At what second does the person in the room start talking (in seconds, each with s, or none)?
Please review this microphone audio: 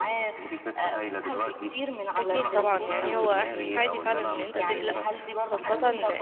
2.2 s